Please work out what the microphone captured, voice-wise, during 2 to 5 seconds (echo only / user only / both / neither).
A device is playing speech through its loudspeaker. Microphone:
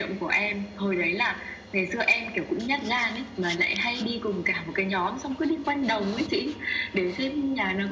echo only